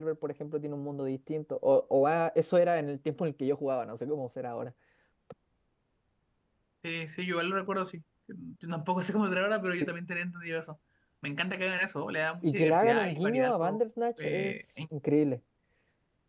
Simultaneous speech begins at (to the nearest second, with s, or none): 12 s